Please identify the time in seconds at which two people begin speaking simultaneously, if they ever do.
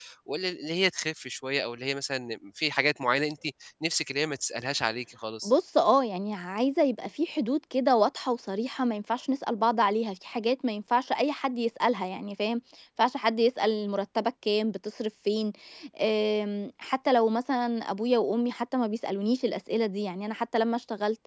none

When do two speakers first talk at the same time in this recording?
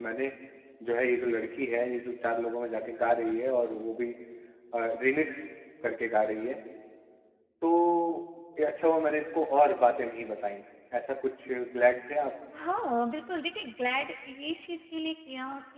none

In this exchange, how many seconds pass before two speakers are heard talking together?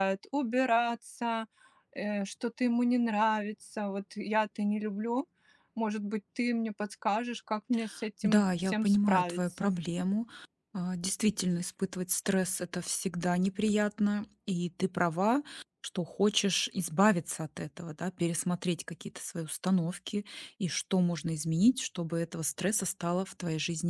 8 s

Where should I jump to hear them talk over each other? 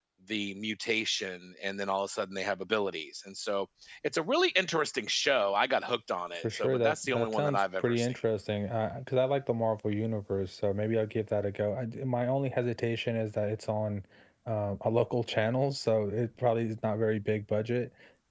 6 s

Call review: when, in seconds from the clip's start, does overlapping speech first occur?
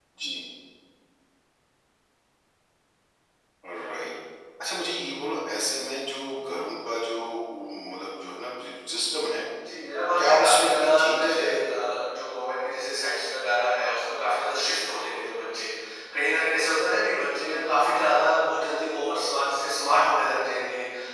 10 s

